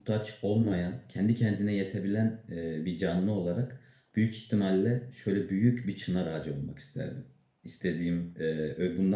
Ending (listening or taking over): listening